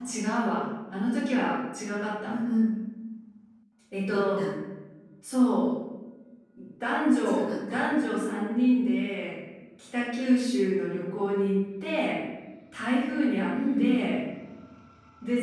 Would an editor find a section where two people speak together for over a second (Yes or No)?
No